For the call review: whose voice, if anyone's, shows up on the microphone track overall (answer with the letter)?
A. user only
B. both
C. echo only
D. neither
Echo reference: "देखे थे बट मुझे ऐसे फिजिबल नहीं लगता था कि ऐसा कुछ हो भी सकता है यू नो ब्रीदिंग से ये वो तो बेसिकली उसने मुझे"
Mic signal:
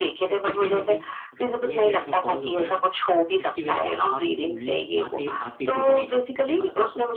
B